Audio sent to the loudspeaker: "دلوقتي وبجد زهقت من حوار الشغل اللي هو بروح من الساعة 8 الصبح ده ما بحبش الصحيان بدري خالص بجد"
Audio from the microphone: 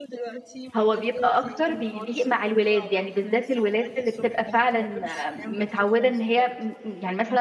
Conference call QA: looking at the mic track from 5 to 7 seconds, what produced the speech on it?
both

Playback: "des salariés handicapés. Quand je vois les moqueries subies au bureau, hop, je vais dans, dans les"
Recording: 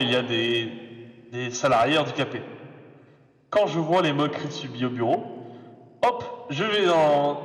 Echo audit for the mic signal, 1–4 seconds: echo only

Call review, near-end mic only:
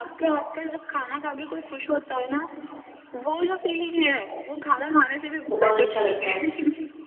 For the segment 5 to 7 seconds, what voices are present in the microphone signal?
both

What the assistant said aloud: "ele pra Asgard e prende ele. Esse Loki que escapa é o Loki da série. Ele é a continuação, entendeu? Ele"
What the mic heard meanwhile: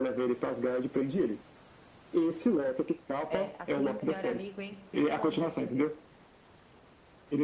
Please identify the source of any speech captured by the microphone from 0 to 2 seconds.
echo only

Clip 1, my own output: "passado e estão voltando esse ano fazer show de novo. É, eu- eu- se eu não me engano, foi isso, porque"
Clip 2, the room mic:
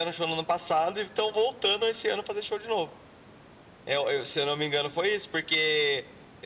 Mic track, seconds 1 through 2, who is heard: echo only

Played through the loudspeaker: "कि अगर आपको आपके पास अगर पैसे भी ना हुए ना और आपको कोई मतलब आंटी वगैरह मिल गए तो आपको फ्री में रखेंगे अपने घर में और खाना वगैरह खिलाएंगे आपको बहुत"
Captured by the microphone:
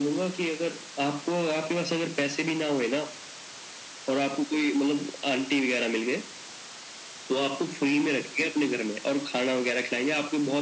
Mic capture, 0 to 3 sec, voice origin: echo only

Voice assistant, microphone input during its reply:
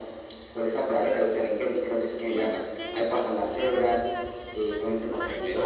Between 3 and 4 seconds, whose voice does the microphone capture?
both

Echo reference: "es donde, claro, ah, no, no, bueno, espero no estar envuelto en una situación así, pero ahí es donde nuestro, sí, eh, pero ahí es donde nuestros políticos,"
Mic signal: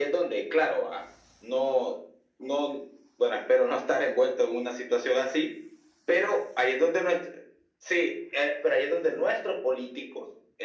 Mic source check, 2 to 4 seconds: echo only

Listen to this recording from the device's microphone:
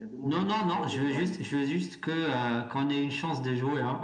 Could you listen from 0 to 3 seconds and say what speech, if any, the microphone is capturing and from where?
echo only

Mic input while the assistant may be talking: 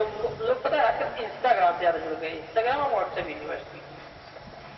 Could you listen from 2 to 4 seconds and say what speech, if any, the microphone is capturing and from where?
echo only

